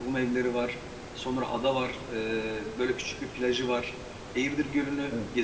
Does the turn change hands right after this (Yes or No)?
No